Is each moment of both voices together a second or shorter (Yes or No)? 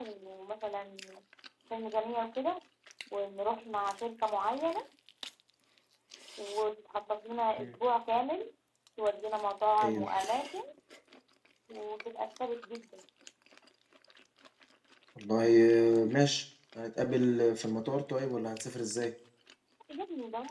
Yes